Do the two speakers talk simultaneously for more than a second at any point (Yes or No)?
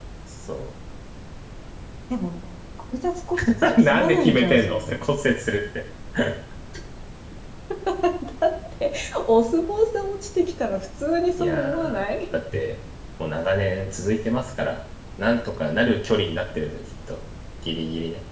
Yes